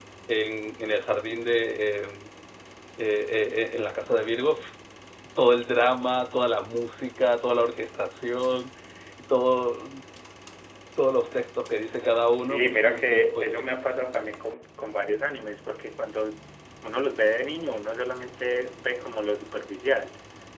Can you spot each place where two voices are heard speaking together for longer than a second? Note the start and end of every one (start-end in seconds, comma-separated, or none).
12.4-13.6